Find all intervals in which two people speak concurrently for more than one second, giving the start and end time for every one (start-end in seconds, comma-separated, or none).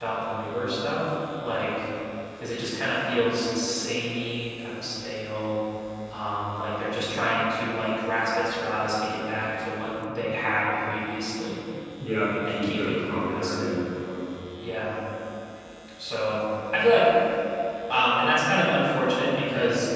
12.5-13.8